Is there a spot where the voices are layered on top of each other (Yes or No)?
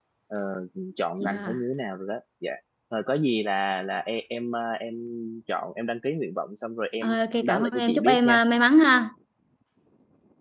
Yes